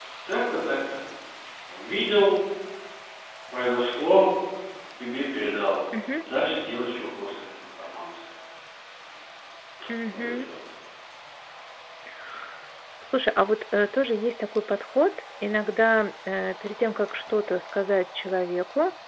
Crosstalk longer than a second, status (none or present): none